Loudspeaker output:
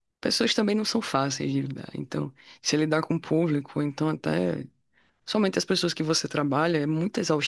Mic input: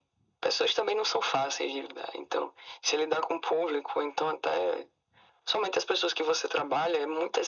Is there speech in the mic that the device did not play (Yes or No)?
No